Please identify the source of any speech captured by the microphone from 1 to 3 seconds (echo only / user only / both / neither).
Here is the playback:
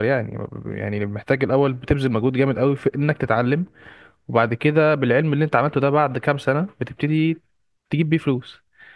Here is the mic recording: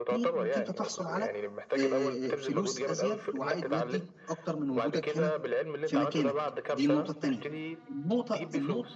both